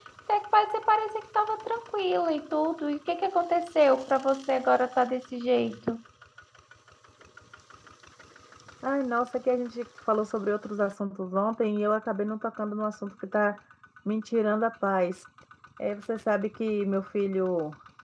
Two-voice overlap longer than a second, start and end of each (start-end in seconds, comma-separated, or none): none